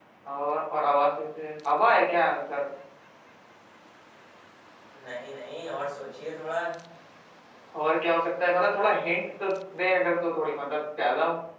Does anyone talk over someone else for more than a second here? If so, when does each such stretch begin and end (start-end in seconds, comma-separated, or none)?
none